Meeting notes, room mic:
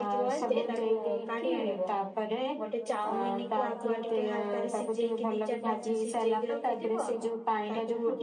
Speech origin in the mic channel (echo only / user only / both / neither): both